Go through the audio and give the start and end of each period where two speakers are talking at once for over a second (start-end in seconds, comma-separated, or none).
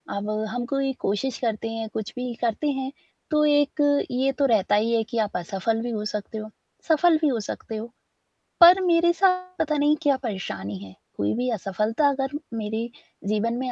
none